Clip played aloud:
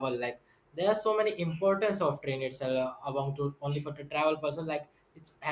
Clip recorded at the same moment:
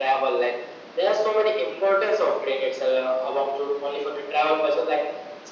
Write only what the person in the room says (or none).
none